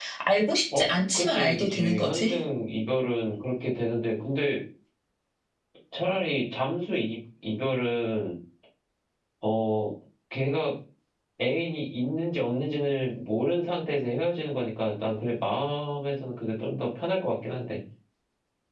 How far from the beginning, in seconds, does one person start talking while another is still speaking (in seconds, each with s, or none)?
0.8 s